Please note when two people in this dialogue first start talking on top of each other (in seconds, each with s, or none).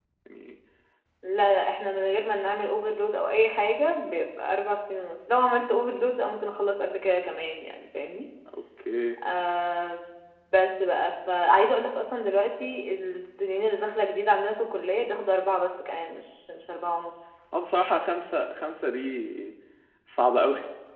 none